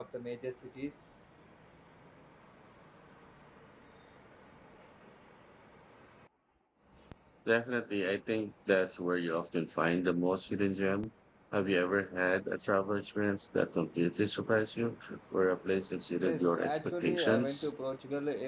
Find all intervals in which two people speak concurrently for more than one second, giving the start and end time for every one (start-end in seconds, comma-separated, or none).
16.2-17.7